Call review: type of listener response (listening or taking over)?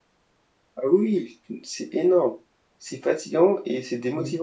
taking over